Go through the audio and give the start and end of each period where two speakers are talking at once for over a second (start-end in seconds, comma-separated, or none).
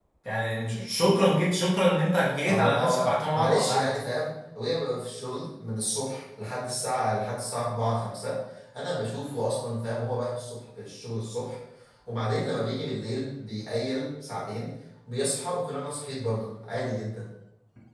2.5-4.0